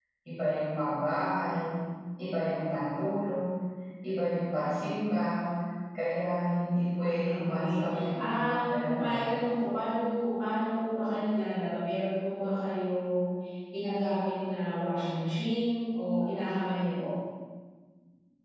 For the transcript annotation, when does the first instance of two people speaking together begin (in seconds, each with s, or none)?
7.0 s